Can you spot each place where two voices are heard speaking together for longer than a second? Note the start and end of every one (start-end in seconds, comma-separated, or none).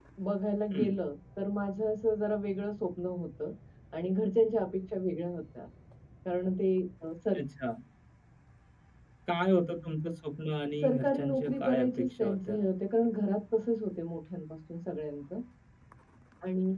10.8-12.6